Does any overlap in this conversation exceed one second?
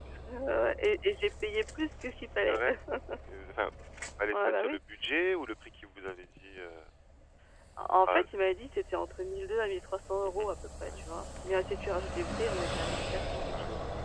No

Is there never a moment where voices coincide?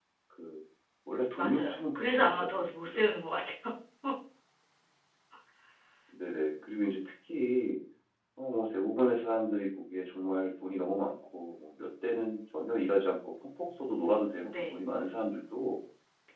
No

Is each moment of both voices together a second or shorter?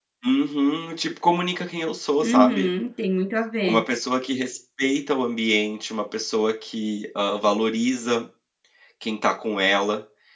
Yes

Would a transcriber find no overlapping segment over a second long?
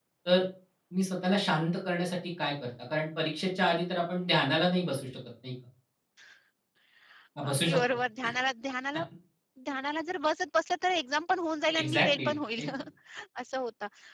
Yes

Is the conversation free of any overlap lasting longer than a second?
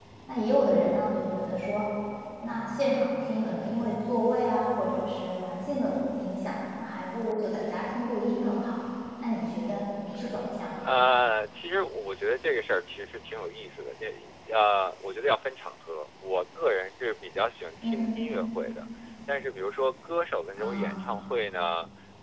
Yes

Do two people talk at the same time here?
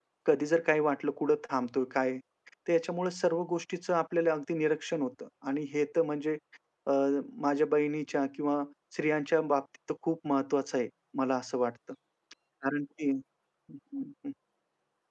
No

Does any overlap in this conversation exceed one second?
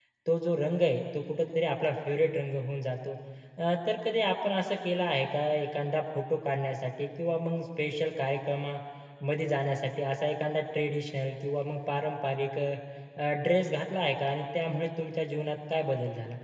No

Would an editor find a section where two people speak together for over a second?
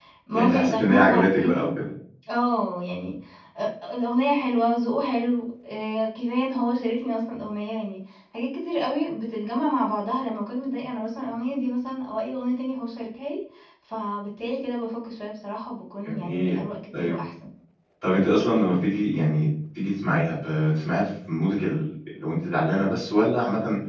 Yes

